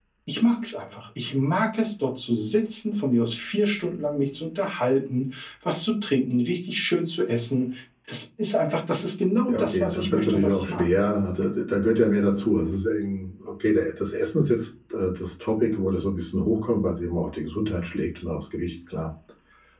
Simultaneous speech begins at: 9.5 s

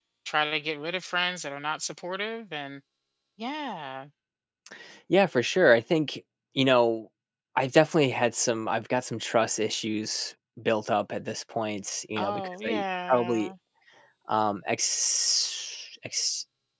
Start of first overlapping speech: 12.2 s

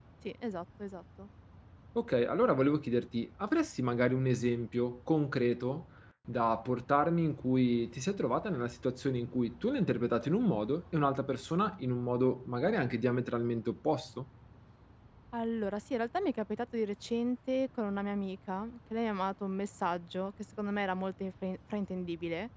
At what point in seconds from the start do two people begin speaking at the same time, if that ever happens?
none

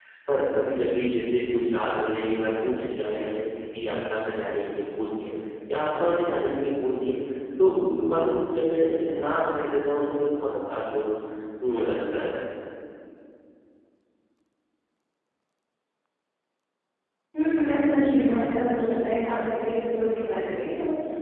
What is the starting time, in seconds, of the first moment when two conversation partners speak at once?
none

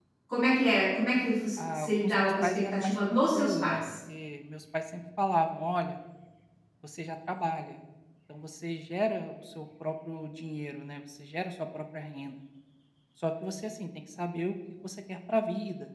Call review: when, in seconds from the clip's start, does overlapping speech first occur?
1.6 s

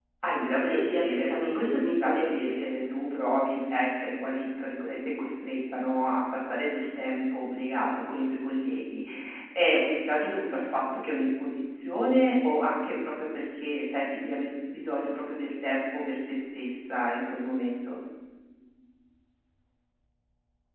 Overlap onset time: 0.6 s

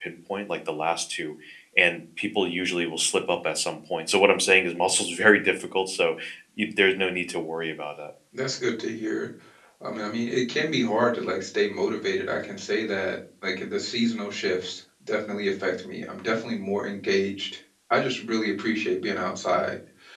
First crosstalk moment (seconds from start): none

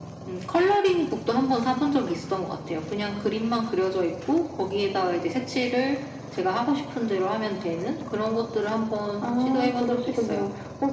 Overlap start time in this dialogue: 9.2 s

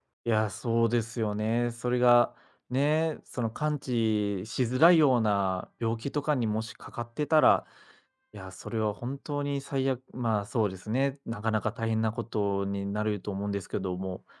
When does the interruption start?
none

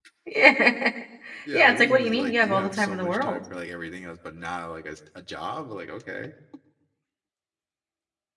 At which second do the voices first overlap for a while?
1.5 s

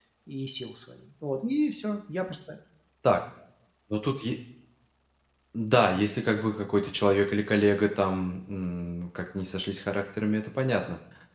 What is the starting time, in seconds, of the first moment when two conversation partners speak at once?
none

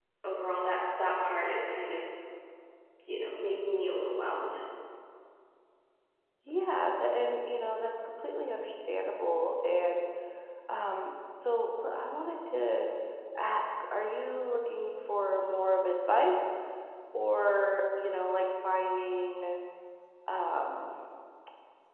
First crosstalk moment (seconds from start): none

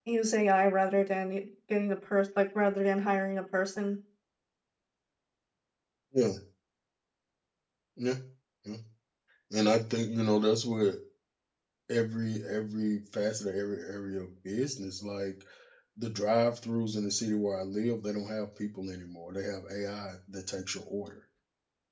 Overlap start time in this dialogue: none

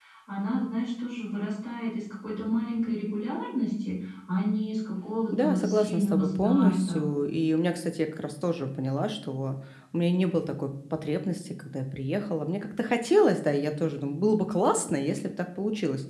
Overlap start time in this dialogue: 5.3 s

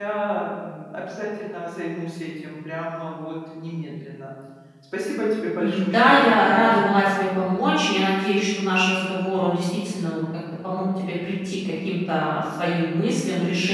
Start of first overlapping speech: 5.6 s

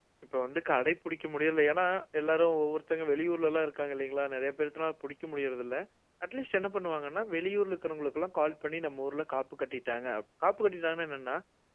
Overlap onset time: none

